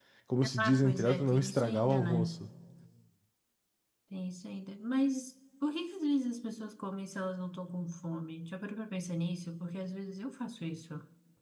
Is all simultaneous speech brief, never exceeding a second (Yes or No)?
No